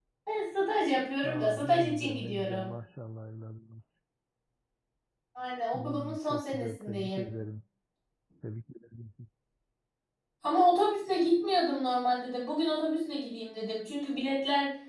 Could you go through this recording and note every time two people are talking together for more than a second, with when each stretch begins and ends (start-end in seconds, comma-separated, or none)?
1.2-2.7, 5.7-7.3